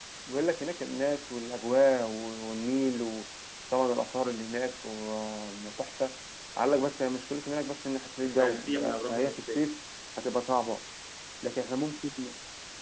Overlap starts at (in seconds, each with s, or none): 8.2 s